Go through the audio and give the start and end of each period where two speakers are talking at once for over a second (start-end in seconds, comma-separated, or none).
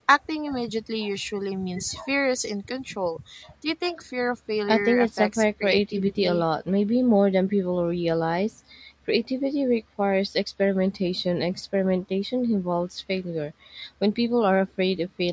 4.7-6.4